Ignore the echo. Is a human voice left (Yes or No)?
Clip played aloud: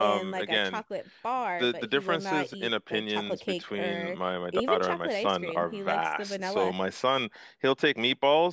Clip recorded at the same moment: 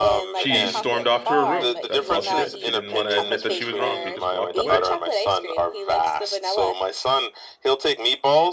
Yes